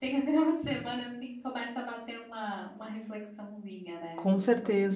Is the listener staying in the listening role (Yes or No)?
No